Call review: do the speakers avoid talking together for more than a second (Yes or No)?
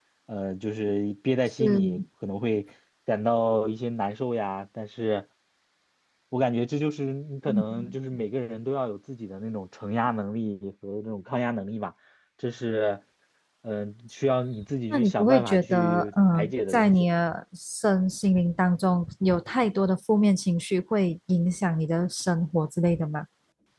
No